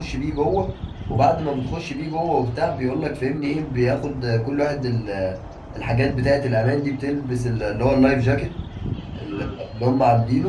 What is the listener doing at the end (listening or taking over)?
listening